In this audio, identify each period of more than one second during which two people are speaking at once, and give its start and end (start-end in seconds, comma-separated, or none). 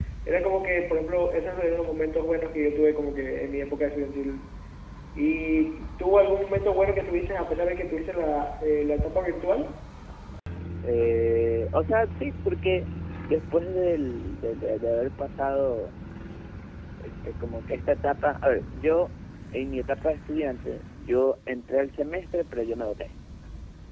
none